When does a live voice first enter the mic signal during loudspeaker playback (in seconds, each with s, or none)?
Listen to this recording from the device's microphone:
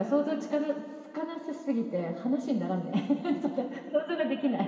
none